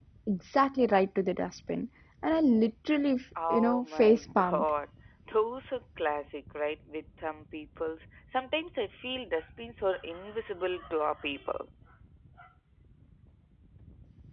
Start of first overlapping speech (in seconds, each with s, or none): 3.4 s